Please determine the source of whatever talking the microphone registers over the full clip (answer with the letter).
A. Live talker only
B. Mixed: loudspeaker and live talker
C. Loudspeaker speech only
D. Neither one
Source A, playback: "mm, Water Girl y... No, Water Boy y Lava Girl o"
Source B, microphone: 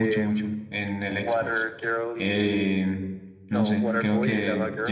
B